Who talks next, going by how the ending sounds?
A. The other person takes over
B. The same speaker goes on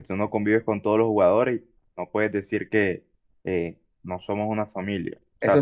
A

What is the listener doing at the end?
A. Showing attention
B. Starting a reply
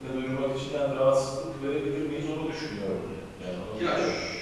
B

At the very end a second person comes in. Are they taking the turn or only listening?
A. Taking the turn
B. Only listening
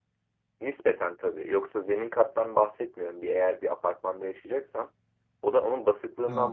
B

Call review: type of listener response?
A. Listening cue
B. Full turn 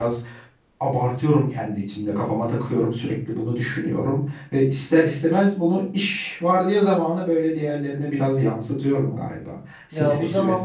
B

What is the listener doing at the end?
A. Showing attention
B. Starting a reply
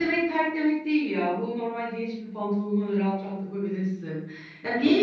A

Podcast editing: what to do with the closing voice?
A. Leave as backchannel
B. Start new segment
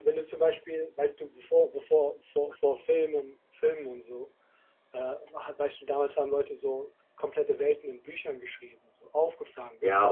B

